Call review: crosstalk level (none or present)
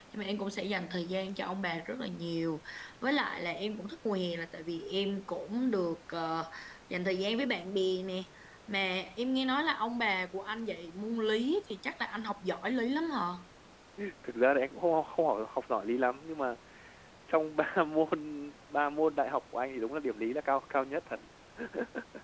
none